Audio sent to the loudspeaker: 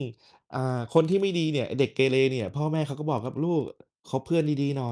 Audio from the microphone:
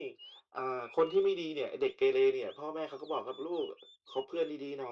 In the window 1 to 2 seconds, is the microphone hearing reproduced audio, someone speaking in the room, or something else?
echo only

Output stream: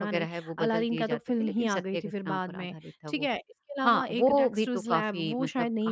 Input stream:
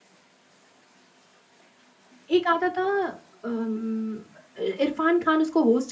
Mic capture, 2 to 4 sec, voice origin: user only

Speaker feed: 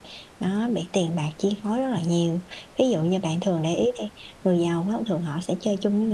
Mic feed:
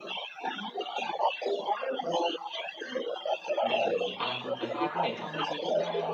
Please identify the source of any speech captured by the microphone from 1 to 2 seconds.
echo only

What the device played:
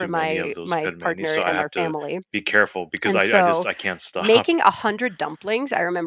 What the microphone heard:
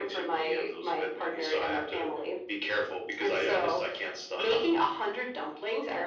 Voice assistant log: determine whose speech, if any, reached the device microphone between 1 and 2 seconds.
echo only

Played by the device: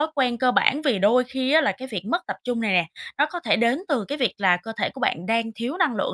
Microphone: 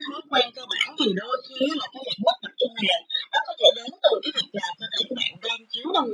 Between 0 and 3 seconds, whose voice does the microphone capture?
echo only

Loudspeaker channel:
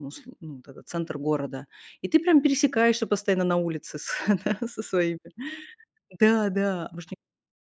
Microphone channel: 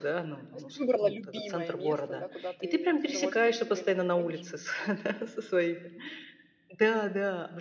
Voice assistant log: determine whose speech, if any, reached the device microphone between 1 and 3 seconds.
both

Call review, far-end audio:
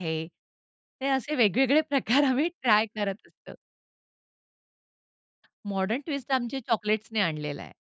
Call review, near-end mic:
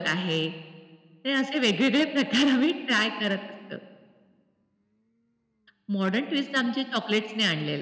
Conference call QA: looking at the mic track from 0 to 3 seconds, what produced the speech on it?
echo only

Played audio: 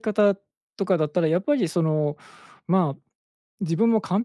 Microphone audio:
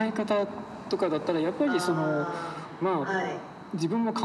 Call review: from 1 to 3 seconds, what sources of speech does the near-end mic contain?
both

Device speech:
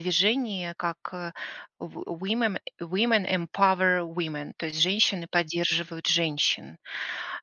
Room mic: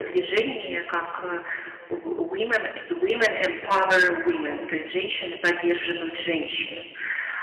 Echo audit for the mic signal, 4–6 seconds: echo only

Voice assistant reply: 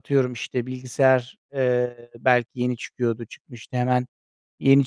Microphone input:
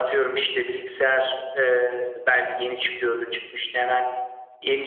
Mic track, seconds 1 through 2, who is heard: echo only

